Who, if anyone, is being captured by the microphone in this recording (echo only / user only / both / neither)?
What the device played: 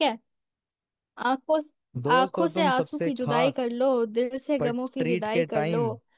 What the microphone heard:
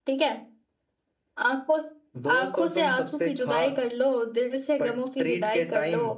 echo only